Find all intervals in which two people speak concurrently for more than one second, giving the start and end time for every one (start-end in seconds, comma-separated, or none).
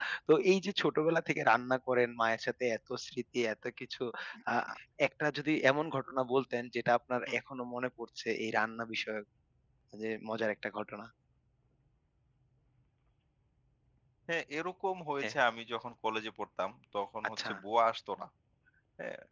none